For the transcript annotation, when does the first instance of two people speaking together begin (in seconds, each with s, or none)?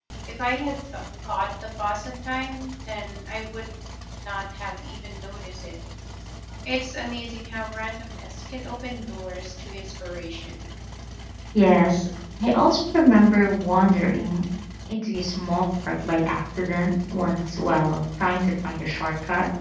none